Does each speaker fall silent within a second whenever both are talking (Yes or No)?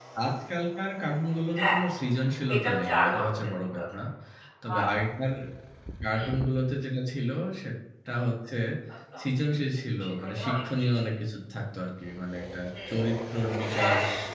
No